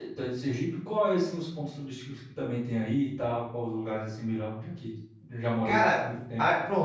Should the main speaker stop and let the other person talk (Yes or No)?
Yes